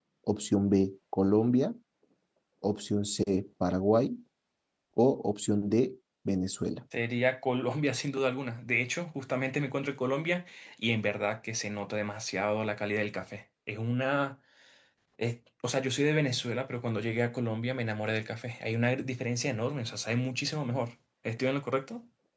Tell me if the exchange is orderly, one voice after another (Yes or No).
Yes